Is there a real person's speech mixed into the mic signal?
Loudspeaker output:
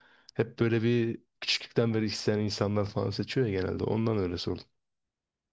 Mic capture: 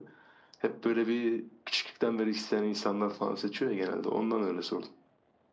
No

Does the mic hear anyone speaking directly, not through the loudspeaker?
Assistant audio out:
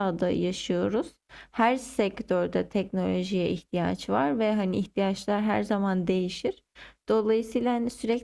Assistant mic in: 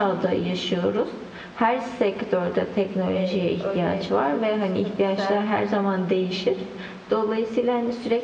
Yes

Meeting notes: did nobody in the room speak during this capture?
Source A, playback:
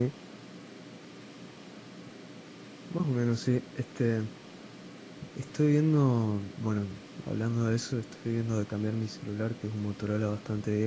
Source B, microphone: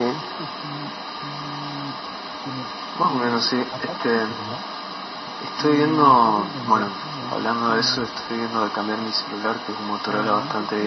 No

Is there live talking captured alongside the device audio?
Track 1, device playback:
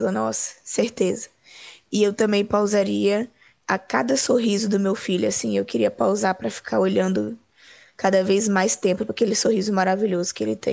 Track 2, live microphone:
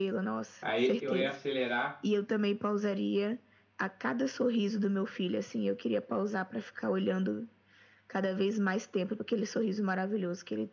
Yes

